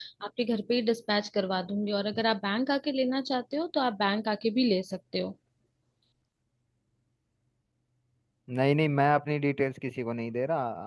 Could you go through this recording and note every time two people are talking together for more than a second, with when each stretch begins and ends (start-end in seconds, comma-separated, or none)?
none